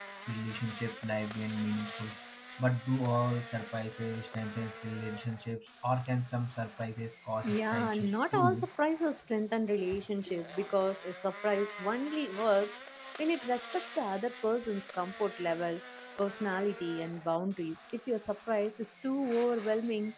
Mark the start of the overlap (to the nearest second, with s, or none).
7 s